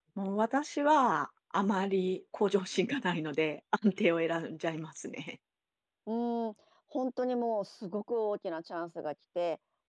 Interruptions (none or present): none